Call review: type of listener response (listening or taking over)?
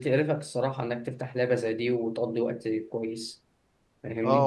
taking over